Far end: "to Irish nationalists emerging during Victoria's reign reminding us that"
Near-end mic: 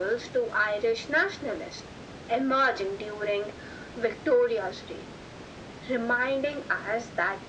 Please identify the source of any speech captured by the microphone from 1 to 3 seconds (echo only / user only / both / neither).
echo only